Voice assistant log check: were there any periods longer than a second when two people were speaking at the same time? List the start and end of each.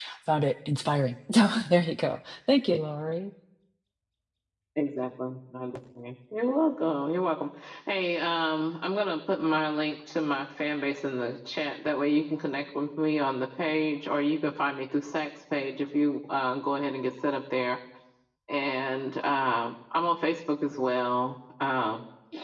none

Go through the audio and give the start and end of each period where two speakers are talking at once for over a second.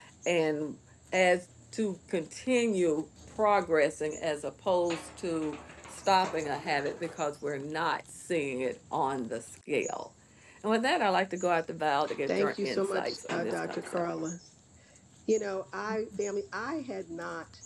12.3-14.1

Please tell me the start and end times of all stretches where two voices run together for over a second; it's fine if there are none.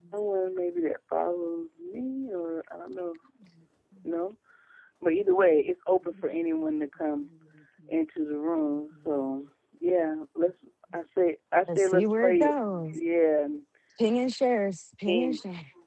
11.7-13.0

